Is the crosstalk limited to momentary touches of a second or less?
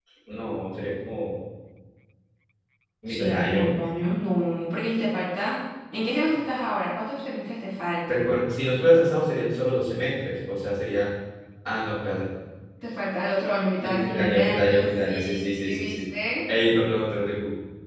No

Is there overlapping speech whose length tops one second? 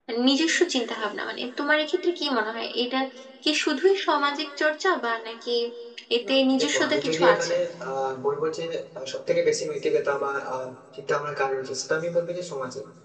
Yes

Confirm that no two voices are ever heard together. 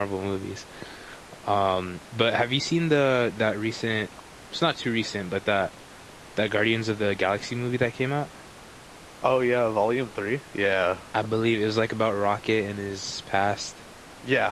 Yes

